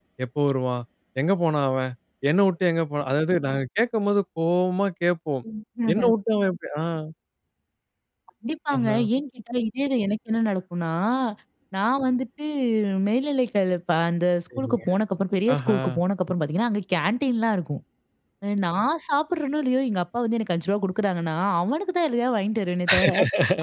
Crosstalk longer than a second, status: none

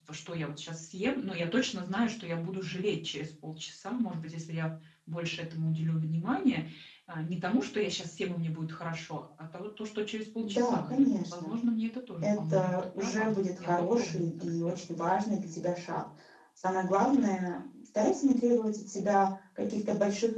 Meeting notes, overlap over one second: present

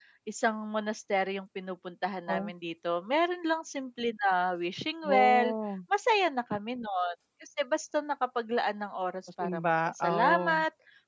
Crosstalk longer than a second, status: present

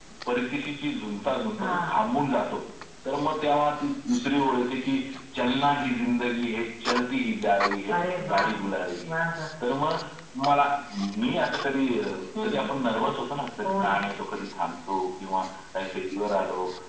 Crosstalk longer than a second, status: none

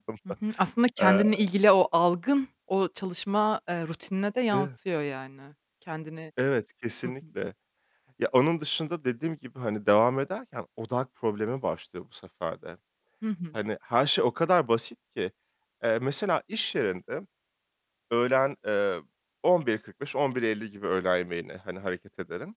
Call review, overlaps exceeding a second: none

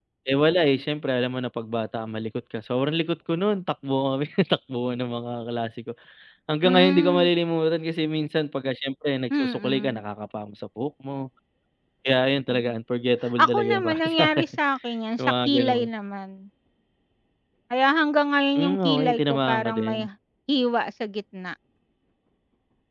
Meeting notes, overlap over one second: present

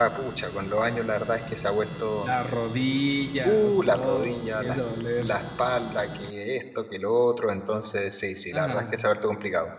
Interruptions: present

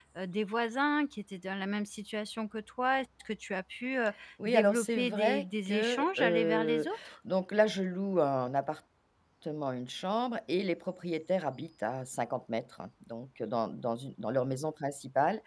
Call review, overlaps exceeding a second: present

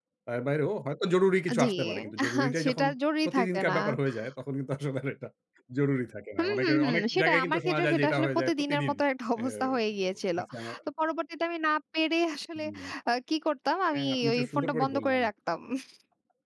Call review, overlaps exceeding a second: present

